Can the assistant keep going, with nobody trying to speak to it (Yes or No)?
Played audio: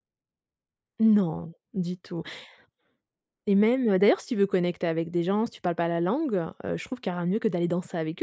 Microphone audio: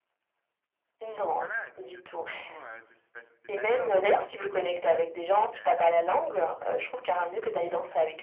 No